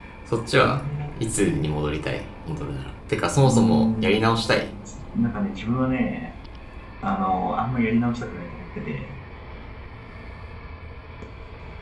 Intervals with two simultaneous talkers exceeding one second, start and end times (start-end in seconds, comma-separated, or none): 3.4-4.7